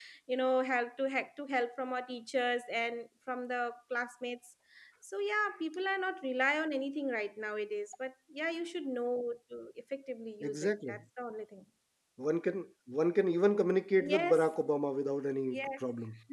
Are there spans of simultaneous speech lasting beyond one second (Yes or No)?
No